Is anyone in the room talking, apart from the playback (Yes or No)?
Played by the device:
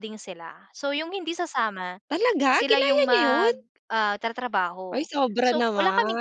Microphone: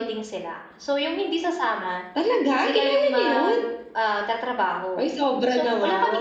No